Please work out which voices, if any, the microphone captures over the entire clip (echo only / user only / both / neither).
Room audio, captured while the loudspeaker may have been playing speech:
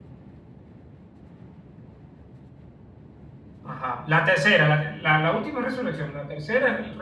user only